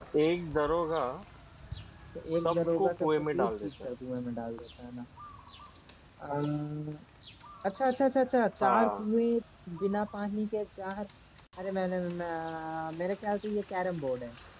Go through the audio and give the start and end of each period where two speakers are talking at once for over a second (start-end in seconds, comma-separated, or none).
2.4-3.7